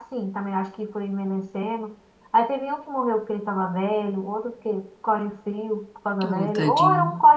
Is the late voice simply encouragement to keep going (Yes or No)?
Yes